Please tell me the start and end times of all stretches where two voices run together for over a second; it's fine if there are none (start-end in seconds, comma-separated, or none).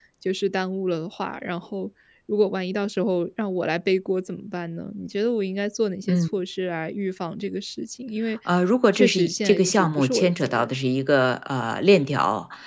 8.9-10.8